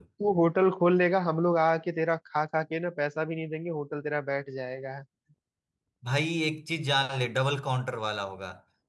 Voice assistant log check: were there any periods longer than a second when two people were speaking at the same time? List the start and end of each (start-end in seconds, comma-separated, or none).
none